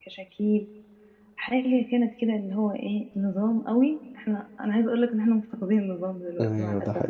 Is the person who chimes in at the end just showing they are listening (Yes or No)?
No